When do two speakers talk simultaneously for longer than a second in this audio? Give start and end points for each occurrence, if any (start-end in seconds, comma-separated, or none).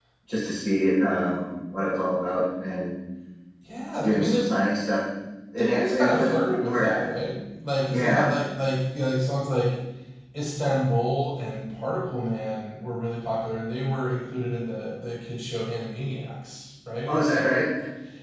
5.6-6.9